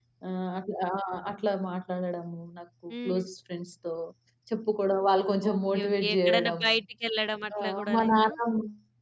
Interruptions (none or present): present